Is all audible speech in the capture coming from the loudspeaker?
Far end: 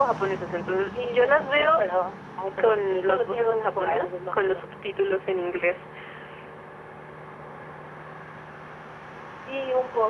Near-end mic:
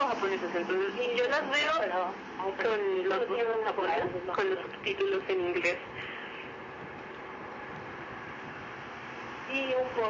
Yes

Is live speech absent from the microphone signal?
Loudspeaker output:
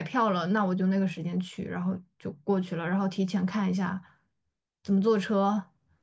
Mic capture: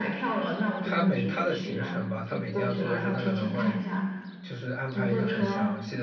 No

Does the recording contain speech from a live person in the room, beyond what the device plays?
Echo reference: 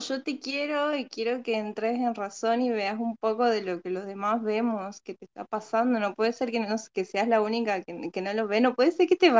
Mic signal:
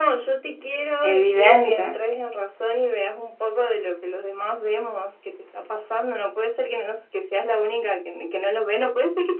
Yes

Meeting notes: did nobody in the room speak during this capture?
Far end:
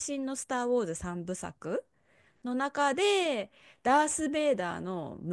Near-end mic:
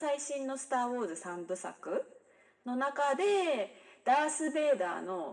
Yes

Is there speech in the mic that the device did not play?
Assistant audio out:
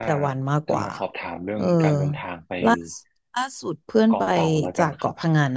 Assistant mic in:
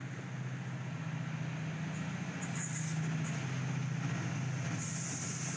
No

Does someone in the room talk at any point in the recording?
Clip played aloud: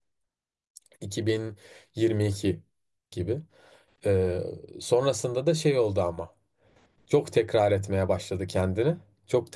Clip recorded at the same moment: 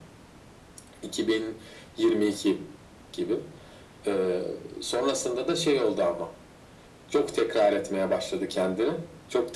No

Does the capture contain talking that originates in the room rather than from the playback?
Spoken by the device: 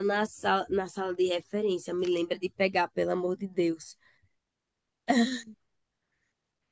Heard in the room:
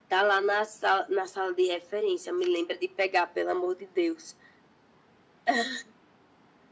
No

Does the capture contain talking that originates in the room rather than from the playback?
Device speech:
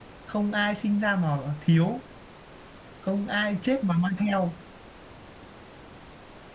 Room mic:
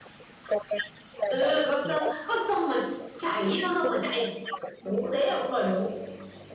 Yes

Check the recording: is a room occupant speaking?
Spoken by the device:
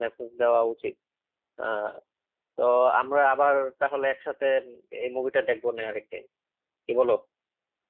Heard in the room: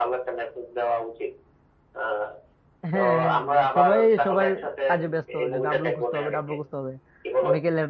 Yes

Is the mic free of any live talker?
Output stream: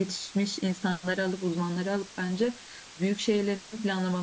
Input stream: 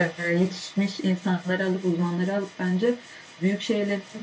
Yes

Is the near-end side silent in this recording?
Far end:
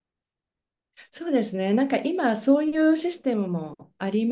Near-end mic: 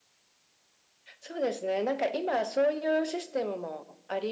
Yes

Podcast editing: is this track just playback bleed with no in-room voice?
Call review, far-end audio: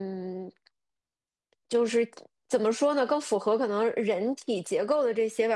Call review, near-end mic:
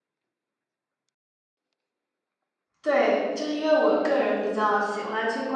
No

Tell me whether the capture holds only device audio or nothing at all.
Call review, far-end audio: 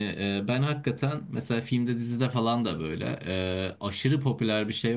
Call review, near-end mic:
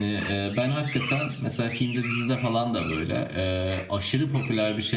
Yes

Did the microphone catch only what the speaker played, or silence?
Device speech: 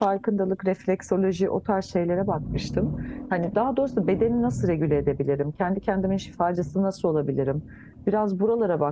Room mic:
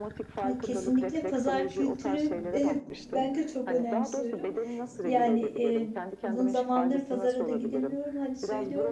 No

